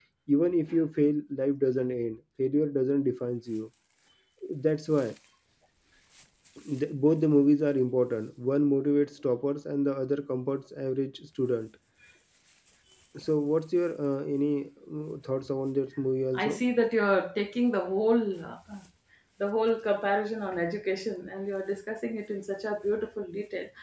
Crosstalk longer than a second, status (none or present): none